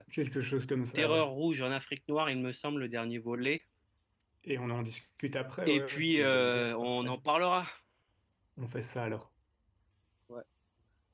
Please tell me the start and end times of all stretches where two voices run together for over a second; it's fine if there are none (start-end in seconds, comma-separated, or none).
5.7-7.1